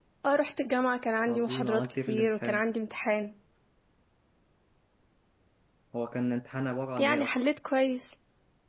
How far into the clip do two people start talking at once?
1.3 s

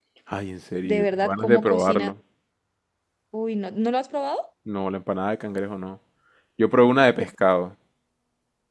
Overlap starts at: 0.8 s

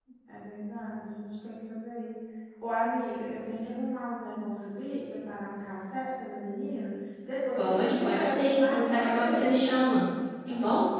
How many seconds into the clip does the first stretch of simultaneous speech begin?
7.6 s

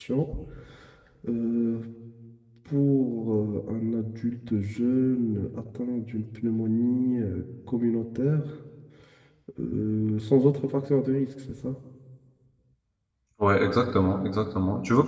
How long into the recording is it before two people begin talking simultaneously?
none

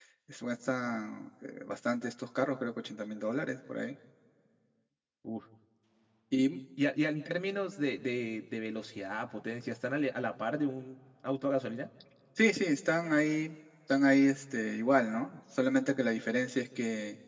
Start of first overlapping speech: none

